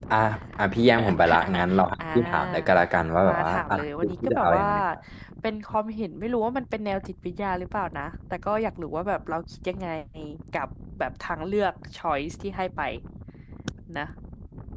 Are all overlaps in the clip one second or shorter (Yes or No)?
No